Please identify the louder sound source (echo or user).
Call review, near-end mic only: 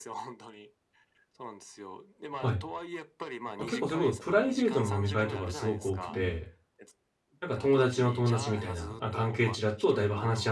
user